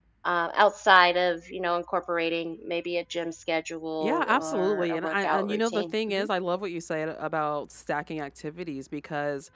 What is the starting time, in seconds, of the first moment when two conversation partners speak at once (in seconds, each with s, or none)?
4.0 s